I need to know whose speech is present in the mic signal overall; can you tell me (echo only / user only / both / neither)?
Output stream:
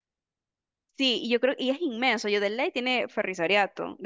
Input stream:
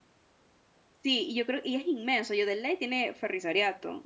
echo only